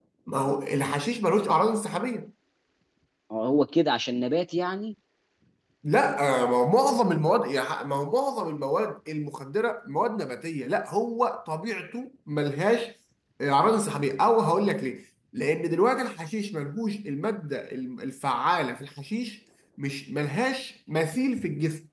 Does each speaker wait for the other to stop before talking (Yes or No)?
Yes